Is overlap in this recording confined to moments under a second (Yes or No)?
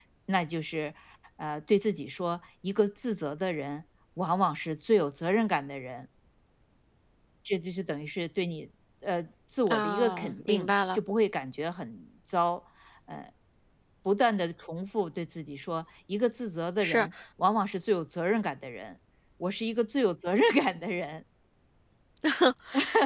No